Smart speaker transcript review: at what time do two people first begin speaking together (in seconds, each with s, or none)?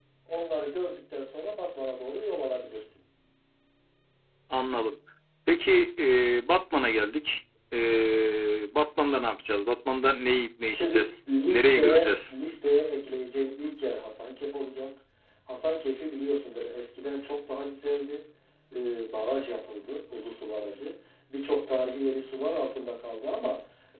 10.6 s